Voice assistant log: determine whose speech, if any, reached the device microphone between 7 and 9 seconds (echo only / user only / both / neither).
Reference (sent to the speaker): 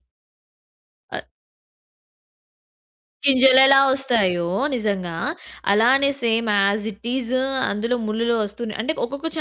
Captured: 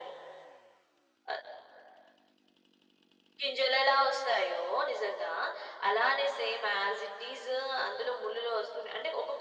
echo only